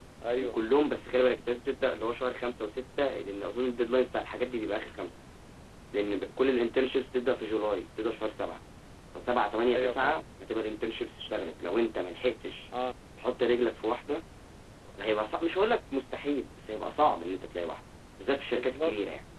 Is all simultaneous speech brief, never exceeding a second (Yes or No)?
Yes